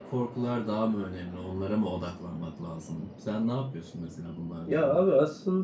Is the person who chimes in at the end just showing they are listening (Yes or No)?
No